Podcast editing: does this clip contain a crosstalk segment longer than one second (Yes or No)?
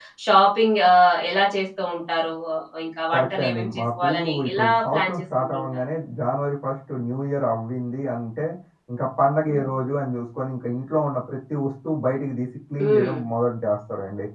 Yes